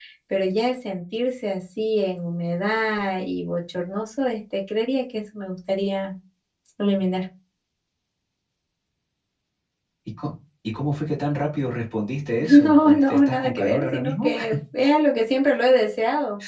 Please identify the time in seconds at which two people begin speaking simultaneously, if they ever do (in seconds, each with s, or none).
12.4 s